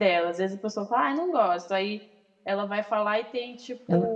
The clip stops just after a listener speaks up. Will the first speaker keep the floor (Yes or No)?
Yes